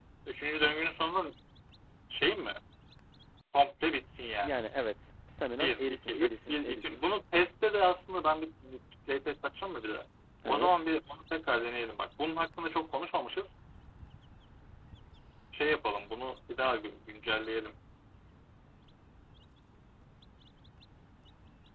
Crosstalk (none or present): present